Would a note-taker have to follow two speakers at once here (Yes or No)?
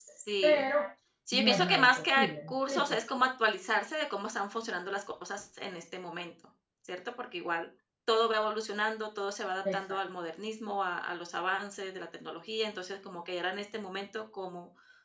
Yes